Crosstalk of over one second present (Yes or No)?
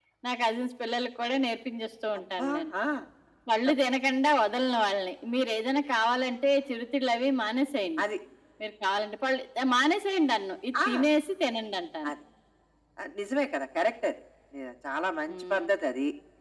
No